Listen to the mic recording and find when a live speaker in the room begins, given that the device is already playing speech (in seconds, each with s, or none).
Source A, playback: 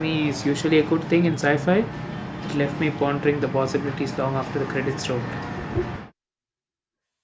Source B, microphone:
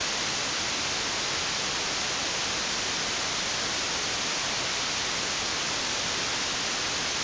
none